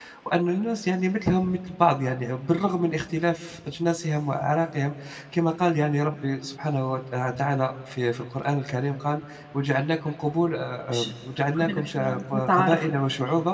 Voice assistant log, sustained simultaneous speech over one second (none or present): present